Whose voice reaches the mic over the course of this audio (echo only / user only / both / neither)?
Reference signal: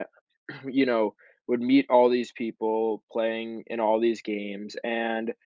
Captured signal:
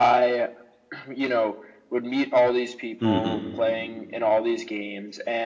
both